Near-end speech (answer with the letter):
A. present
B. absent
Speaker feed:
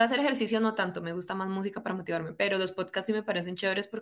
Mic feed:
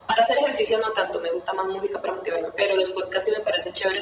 B